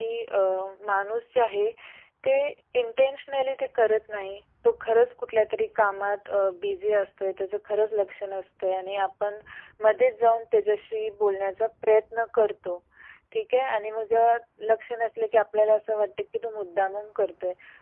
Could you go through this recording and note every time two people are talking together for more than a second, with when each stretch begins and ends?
none

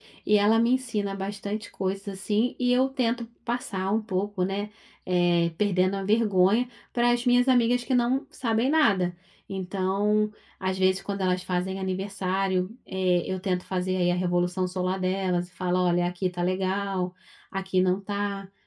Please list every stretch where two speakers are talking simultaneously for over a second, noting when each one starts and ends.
none

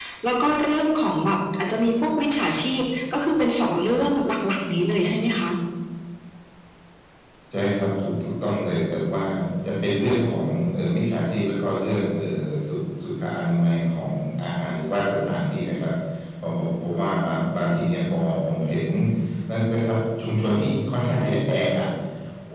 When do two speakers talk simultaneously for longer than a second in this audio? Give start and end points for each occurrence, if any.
none

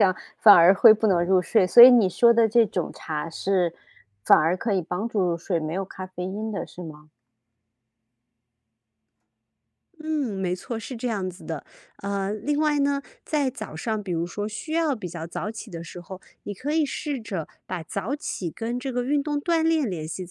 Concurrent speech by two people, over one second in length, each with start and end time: none

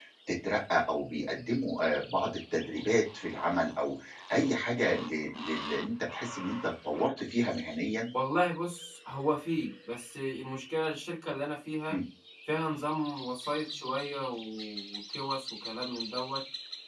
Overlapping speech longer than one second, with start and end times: none

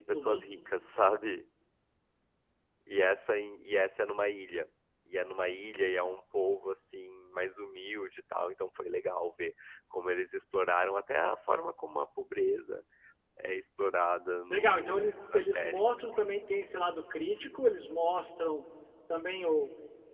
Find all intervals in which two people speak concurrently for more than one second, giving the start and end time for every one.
14.5-15.8

